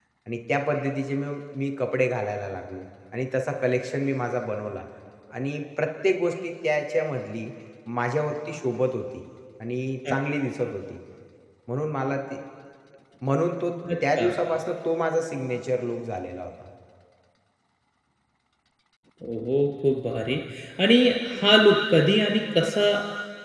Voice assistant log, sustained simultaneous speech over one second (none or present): none